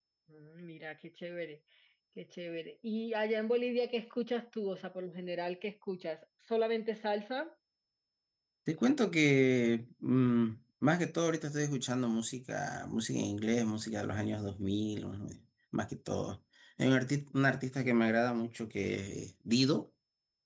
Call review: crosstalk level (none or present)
none